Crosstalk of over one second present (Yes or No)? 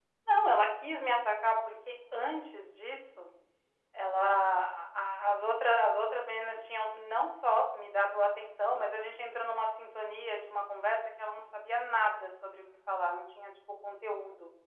No